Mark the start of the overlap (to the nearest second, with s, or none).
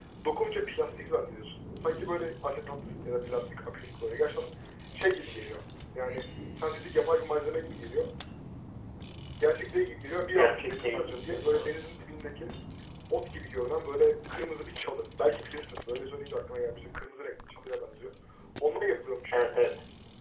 10 s